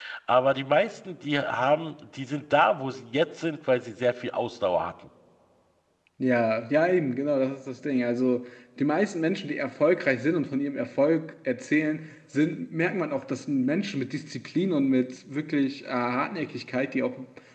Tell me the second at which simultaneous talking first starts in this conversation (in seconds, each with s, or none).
none